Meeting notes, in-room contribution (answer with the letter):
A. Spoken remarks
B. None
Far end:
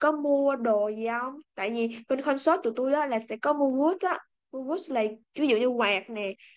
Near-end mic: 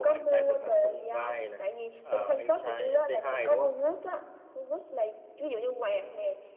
A